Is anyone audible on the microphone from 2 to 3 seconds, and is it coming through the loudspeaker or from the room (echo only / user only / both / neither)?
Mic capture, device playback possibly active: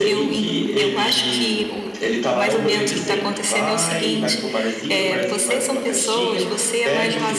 both